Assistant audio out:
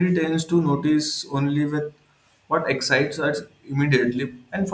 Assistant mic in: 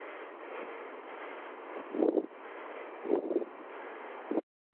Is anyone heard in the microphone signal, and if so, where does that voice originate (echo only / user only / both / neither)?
neither